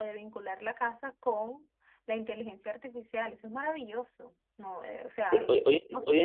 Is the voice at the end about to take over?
Yes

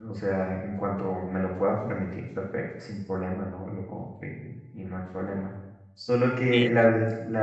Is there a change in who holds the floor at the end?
No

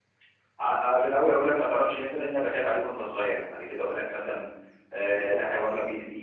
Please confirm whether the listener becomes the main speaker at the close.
No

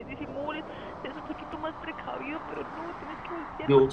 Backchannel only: Yes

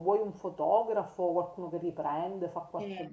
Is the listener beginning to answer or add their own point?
Yes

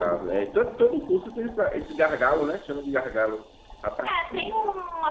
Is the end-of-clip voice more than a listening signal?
Yes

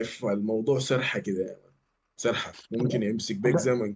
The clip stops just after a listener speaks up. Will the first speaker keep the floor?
Yes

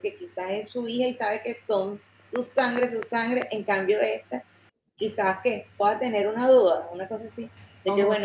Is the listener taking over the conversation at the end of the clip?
No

